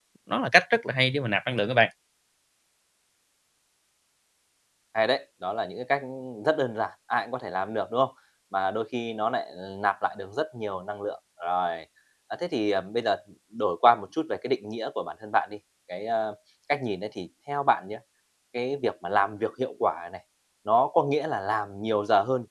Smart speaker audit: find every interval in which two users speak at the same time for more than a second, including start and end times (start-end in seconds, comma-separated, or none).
none